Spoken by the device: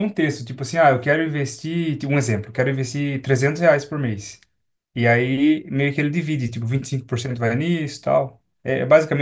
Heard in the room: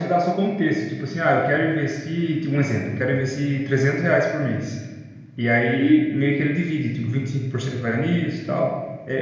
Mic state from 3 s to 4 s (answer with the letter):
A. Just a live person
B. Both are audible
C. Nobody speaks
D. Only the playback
D